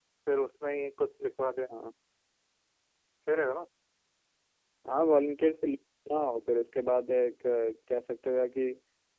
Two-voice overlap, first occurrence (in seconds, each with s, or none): none